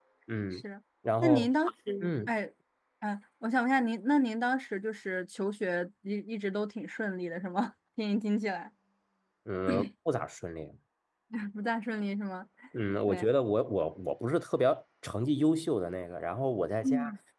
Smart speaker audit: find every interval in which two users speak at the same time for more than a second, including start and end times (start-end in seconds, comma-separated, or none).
none